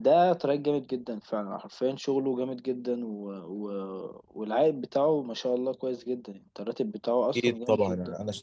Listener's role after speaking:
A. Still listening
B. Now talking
B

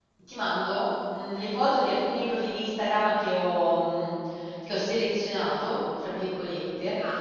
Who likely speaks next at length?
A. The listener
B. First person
B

